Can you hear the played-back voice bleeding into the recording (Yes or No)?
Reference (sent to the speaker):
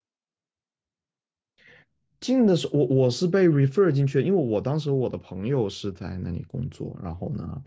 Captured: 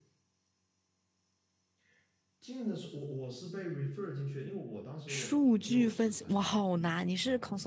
Yes